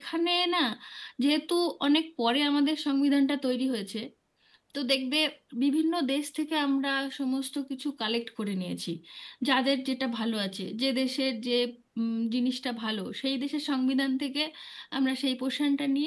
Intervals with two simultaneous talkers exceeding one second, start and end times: none

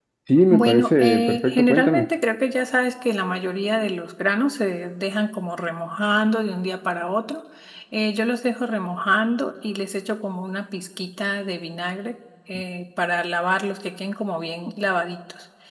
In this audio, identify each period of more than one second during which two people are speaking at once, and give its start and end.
0.5-2.1

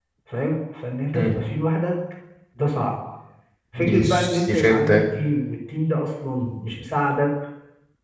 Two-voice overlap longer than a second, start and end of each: 3.8-5.0

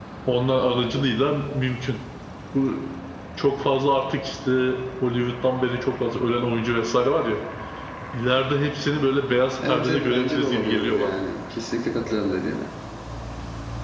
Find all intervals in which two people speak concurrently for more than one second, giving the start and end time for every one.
9.7-11.2

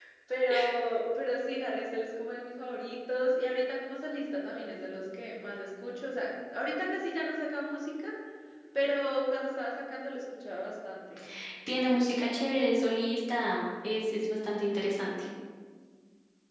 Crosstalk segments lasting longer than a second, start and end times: none

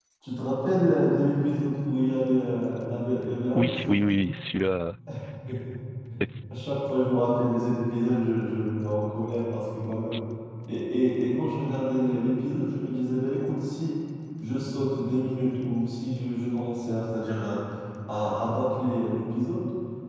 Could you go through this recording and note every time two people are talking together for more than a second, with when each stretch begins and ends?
none

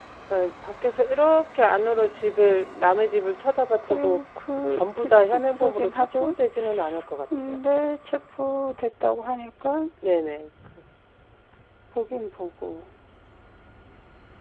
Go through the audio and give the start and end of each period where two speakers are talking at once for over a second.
4.7-6.3

